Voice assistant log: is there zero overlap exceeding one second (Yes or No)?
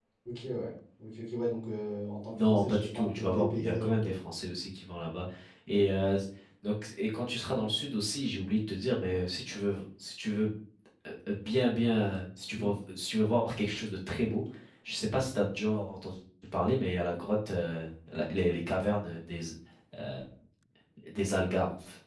No